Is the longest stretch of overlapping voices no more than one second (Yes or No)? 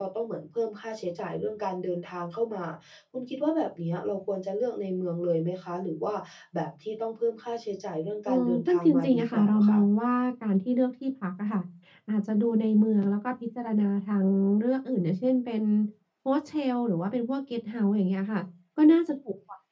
No